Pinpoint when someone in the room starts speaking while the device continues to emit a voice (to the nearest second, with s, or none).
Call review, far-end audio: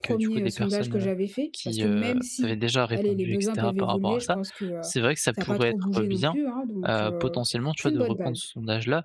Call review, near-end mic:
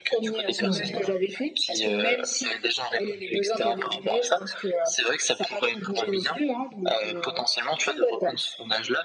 1 s